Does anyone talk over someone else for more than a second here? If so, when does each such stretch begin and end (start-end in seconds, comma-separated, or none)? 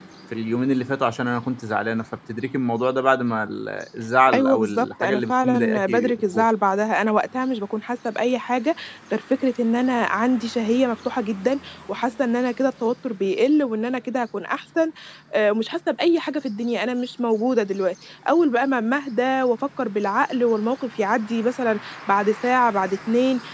4.3-6.4